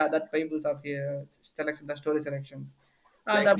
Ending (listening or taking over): taking over